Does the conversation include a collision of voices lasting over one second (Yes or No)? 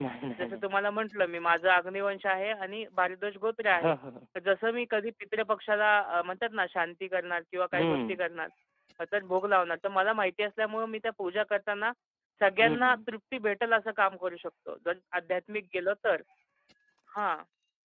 No